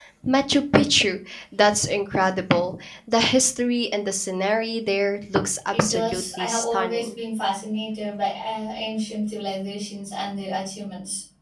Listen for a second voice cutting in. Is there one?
Yes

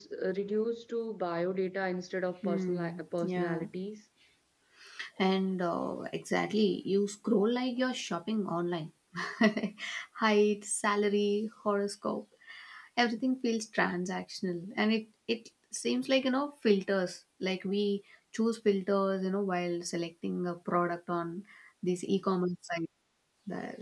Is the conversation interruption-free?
No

